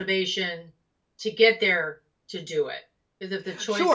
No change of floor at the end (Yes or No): No